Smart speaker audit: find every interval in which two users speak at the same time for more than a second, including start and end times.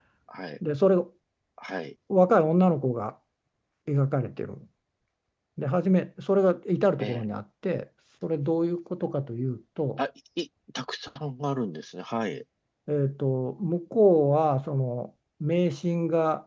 none

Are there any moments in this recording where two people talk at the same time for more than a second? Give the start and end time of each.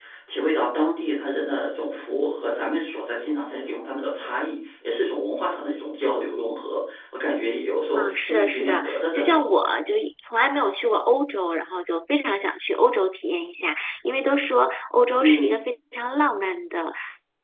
7.9-9.4

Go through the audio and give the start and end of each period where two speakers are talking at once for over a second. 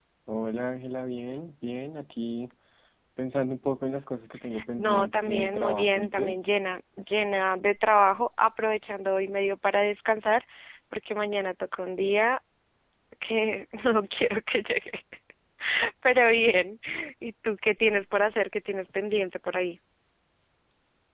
4.8-6.4

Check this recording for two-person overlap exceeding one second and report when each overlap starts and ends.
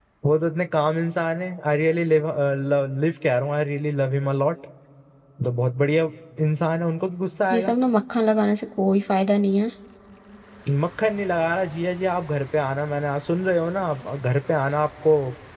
none

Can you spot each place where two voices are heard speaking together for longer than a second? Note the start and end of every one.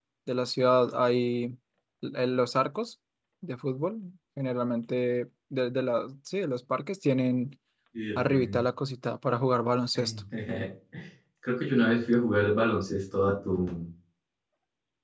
none

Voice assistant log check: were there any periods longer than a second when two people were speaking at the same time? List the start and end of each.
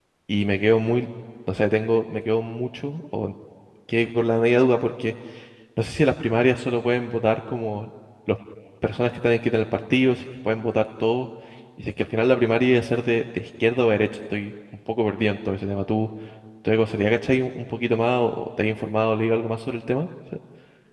none

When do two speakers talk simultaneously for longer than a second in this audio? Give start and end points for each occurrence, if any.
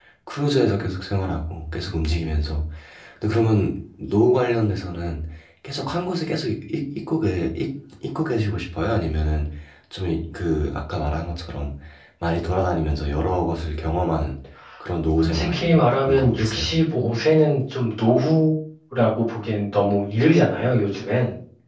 15.2-16.7

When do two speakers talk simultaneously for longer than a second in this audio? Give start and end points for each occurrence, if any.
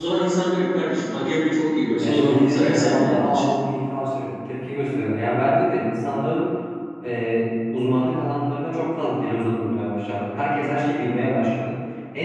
2.0-3.4

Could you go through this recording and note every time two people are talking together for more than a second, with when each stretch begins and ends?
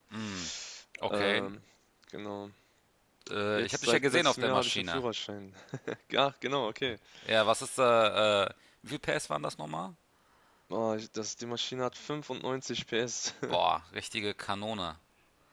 3.6-5.0

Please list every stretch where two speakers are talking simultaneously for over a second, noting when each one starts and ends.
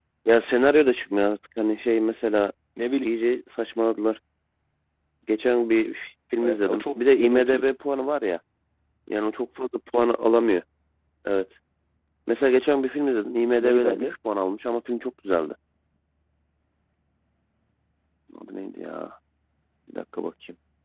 6.4-7.6

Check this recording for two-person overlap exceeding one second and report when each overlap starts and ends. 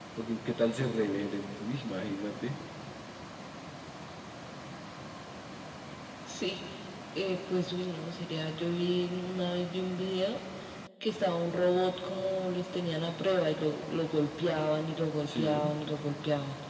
none

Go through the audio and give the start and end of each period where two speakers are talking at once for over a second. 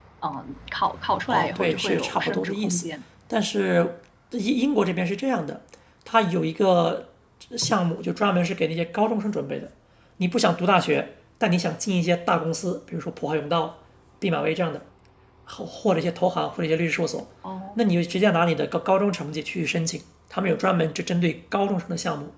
1.3-2.8

